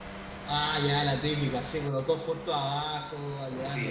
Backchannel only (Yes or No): No